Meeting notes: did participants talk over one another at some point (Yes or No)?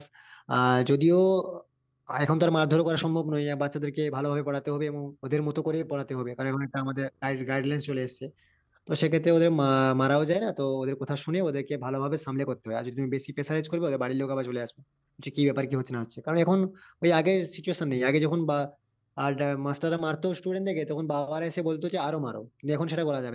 No